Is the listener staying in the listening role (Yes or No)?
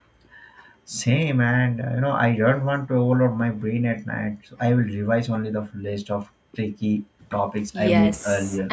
No